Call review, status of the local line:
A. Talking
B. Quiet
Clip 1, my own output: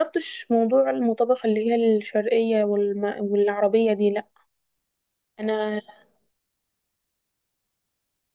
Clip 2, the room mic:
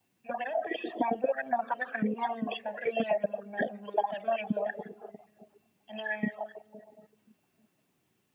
B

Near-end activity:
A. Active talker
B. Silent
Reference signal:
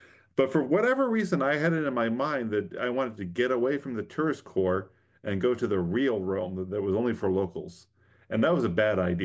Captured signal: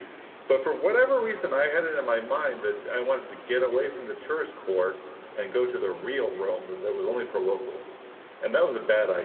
B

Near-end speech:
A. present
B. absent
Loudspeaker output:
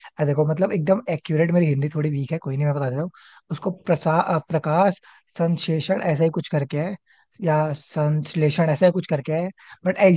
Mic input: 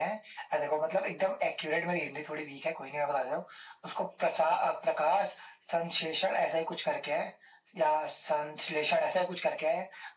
B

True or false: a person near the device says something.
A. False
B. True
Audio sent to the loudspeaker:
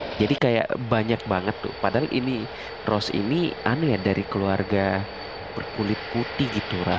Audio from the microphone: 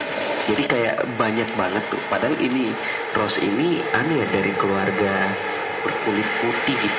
A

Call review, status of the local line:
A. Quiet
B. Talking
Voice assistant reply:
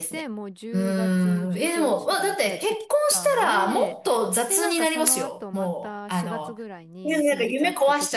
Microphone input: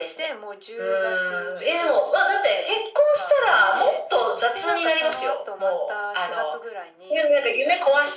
A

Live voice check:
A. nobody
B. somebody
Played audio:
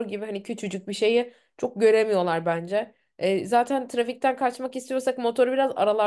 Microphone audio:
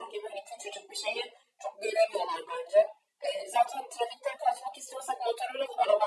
A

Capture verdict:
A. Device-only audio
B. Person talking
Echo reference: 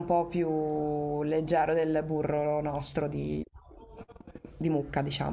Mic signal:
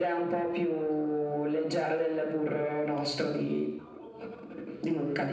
A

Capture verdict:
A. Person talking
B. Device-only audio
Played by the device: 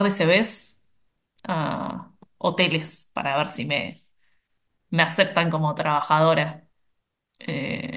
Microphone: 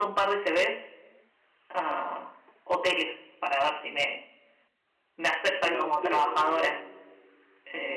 A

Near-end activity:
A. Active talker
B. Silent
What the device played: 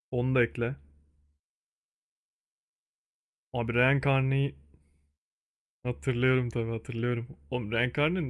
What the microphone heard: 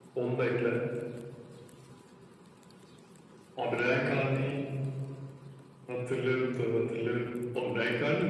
B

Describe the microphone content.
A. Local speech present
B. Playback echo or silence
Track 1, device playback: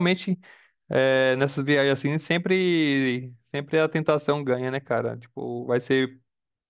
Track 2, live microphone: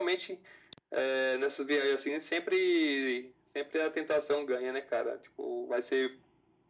B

